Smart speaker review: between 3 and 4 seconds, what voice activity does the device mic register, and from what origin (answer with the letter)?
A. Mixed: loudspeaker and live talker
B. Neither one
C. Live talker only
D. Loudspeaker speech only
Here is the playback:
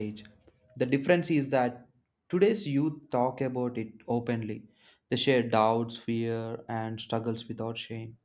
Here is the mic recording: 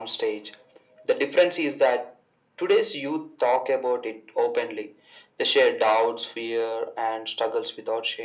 D